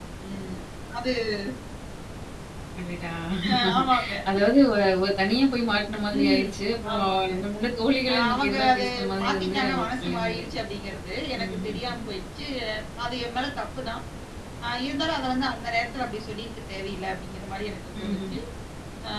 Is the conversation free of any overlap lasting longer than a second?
No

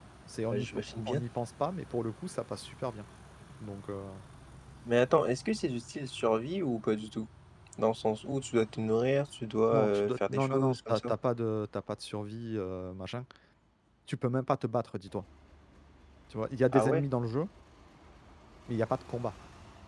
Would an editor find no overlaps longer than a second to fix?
No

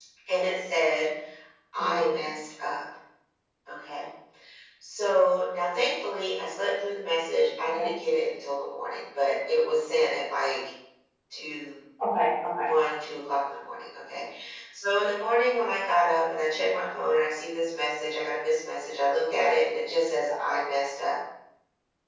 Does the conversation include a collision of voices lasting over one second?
No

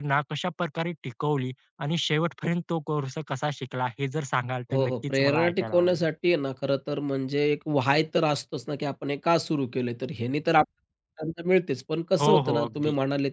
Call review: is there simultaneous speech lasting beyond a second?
Yes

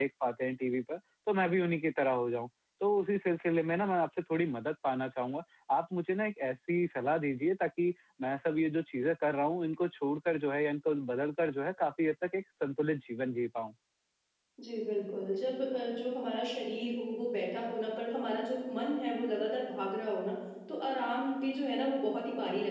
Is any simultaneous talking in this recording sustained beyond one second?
No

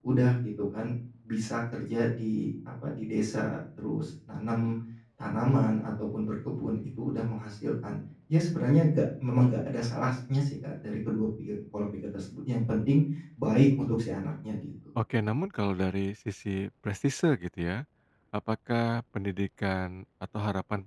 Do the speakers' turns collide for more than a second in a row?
No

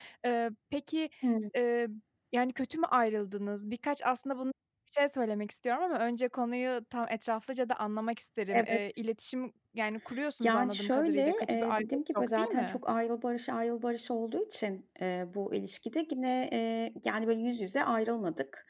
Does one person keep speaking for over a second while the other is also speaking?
Yes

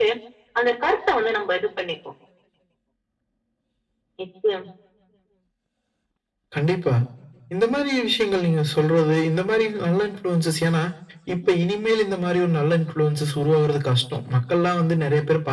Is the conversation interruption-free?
Yes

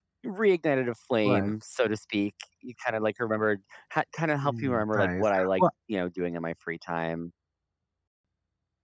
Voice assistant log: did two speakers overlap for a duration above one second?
Yes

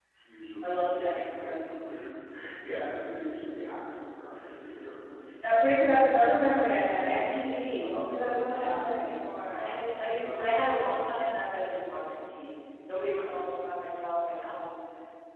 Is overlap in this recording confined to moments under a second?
No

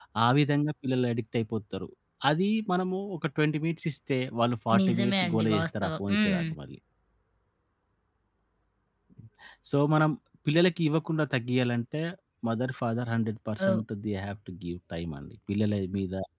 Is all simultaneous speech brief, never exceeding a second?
No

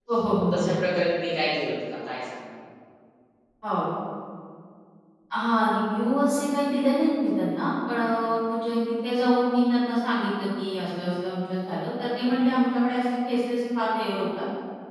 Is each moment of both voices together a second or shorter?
Yes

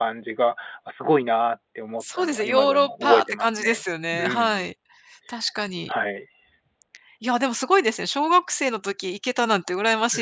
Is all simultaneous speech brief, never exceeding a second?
No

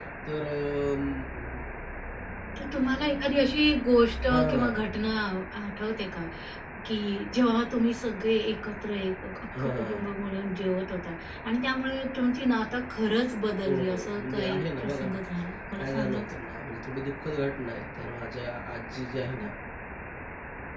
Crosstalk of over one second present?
Yes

